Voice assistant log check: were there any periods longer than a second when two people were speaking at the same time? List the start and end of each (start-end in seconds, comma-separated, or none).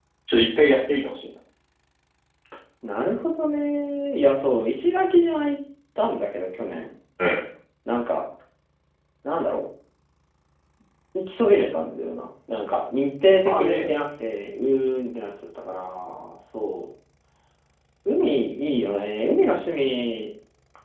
none